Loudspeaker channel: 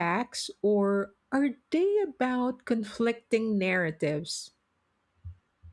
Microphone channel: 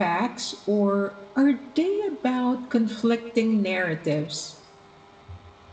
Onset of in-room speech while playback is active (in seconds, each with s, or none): none